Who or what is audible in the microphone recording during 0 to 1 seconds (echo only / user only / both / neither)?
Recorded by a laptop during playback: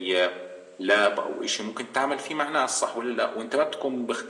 echo only